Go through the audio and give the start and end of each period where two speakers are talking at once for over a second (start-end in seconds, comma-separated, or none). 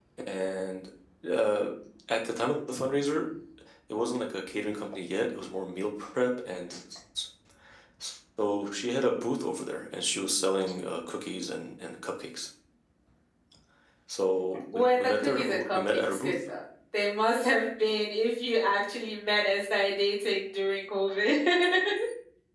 14.7-16.3